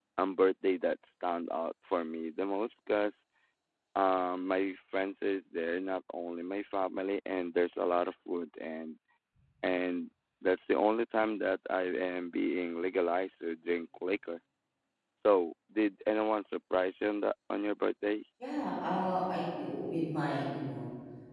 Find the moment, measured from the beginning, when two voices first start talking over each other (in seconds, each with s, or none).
none